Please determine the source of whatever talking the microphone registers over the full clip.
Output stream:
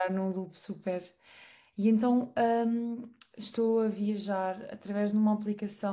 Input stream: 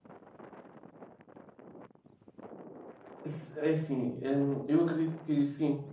user only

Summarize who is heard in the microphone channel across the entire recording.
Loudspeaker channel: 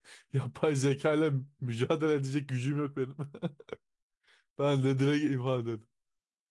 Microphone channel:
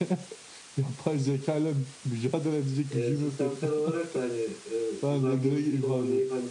both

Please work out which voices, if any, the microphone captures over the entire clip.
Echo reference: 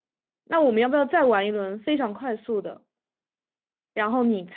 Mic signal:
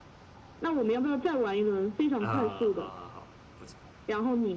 both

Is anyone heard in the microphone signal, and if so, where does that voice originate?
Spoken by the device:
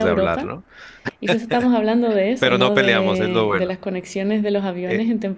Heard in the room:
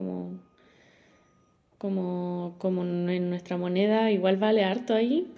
user only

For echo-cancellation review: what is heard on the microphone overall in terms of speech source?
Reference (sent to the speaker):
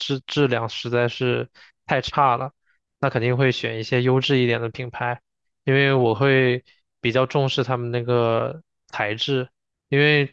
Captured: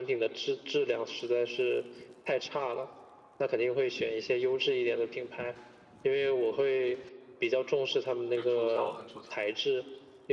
both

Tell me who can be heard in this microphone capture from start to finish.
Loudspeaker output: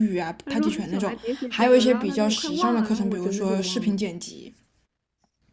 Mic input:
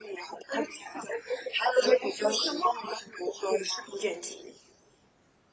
echo only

